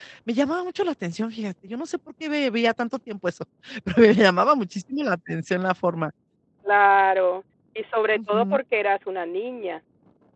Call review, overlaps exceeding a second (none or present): none